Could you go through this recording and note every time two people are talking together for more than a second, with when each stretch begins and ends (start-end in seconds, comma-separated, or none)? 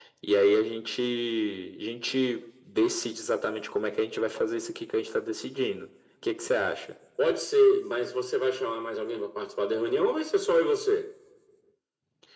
none